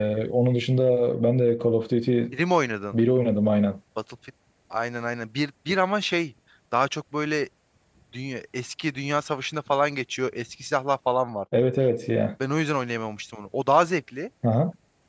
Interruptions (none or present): none